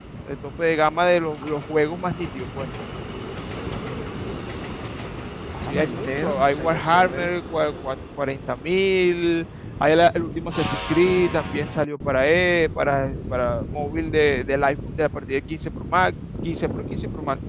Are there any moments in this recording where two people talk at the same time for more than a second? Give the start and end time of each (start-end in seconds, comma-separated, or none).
5.6-7.3